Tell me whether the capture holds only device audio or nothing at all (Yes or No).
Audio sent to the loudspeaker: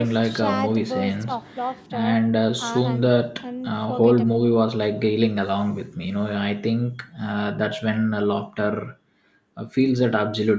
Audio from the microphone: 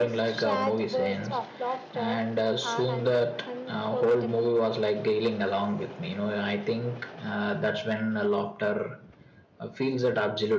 Yes